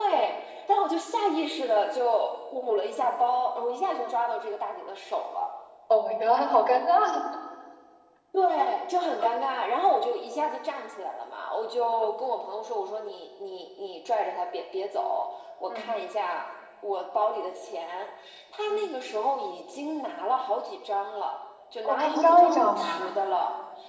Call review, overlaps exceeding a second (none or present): present